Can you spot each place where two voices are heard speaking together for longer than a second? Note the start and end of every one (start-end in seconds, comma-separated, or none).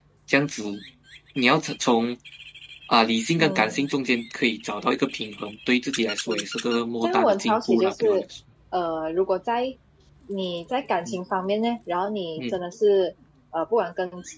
7.0-8.2